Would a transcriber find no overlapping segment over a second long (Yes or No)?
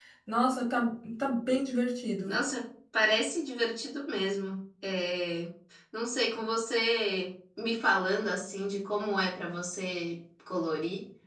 Yes